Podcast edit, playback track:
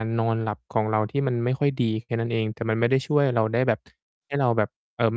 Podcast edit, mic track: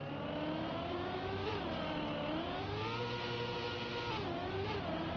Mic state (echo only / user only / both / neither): neither